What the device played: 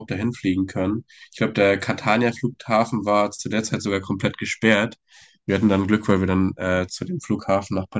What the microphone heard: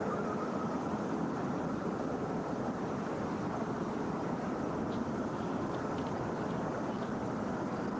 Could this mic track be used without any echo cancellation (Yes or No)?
Yes